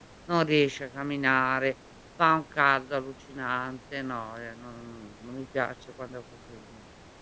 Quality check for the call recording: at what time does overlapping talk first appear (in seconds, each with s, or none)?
none